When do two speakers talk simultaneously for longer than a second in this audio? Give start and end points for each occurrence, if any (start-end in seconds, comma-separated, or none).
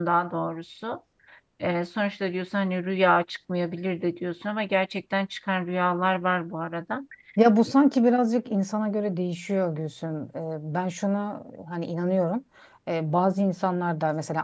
none